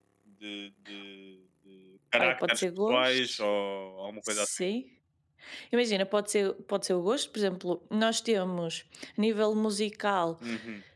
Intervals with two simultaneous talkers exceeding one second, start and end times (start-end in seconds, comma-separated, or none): 2.2-3.4